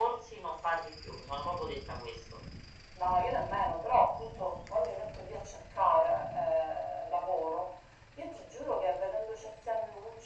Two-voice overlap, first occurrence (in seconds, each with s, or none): none